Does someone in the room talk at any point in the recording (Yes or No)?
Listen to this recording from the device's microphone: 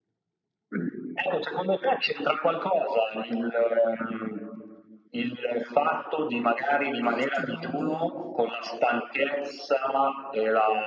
Yes